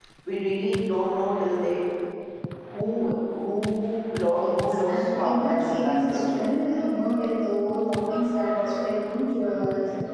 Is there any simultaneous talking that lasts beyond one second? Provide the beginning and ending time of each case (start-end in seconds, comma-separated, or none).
4.4-6.4